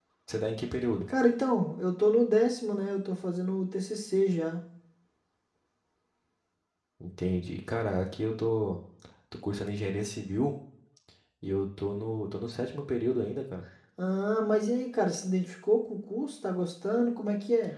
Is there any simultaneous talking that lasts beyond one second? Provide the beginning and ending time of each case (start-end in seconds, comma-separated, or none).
none